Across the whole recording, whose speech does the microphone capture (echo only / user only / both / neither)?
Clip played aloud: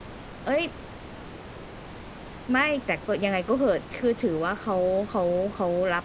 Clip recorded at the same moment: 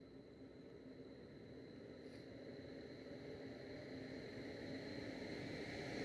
neither